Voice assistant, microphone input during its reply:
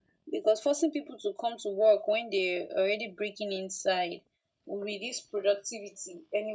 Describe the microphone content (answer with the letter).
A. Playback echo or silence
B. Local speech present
A